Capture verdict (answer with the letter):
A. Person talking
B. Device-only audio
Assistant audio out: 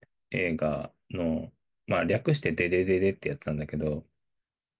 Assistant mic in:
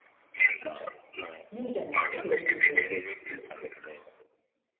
A